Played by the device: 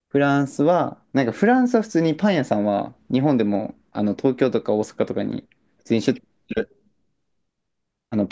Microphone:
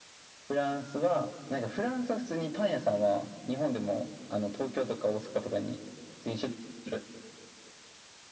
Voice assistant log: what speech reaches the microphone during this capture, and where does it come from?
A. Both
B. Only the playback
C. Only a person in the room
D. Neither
B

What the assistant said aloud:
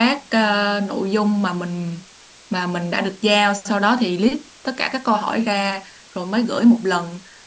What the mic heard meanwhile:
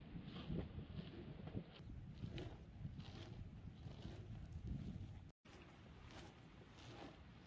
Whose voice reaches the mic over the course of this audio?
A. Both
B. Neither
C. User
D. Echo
B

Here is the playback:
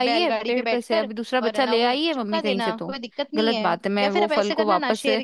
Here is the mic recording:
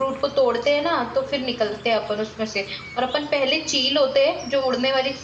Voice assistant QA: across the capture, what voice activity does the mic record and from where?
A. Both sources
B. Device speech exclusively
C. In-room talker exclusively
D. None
C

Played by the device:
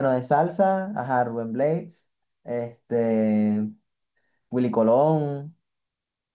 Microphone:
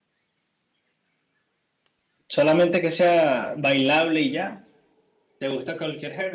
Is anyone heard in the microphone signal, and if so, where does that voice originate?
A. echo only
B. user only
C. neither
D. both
B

